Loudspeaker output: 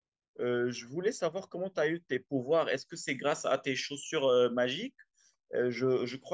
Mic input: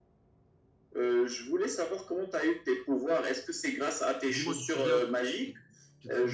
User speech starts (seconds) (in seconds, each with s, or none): 4.3 s